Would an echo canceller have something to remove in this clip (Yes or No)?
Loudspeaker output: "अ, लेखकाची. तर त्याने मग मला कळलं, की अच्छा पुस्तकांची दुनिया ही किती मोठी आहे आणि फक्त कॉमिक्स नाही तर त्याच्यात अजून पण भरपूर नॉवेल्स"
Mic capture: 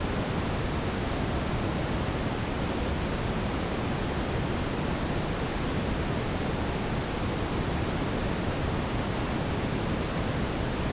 No